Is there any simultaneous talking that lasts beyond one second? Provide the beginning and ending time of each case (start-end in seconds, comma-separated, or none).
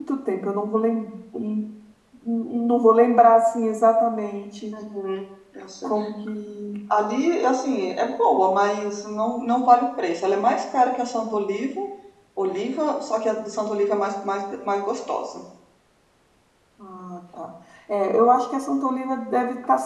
none